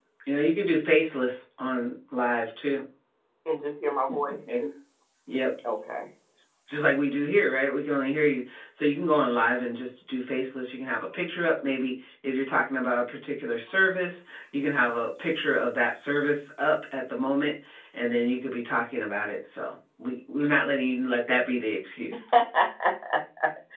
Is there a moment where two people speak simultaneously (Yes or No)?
No